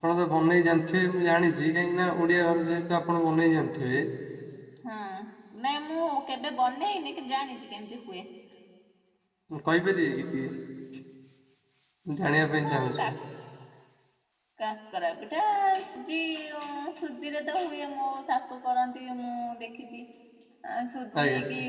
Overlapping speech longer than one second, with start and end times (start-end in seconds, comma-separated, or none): none